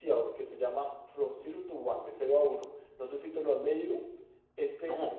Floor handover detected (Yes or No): No